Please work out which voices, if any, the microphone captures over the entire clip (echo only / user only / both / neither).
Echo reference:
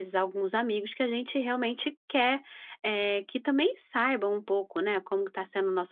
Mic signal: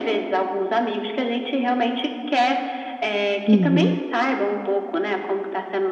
both